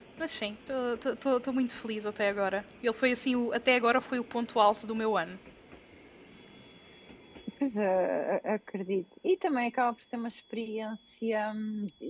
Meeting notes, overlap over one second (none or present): none